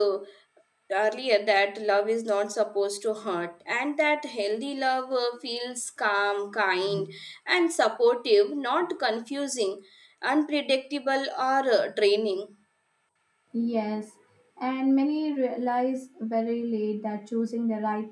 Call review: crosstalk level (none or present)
none